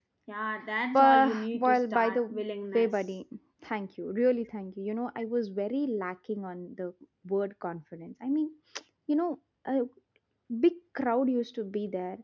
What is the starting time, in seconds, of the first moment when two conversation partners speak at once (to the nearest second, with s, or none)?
1 s